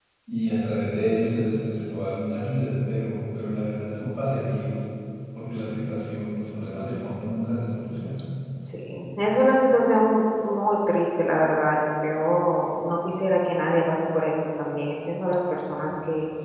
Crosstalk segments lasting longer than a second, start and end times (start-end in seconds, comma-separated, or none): none